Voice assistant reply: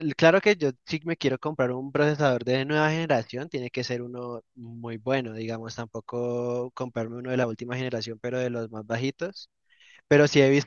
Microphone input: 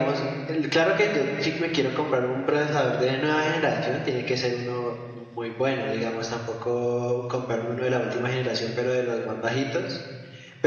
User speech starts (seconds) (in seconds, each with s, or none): none